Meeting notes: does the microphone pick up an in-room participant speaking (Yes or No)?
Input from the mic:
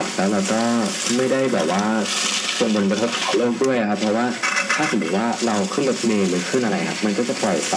No